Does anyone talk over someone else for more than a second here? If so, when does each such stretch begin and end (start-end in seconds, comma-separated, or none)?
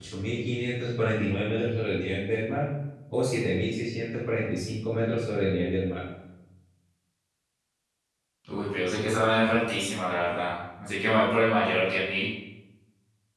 none